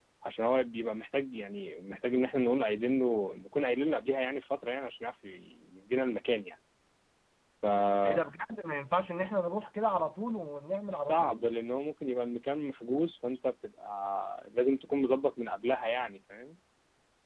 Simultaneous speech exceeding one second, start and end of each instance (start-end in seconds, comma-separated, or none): none